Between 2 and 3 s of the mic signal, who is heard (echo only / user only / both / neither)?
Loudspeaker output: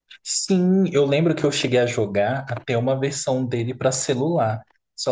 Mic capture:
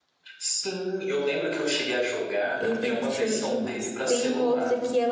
both